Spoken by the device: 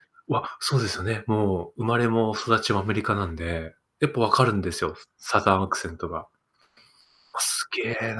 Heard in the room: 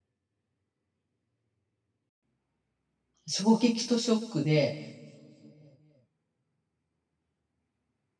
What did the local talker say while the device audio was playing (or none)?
衝撃とショックで